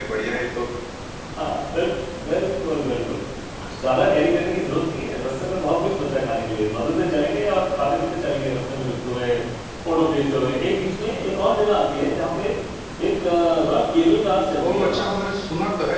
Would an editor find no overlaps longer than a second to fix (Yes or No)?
Yes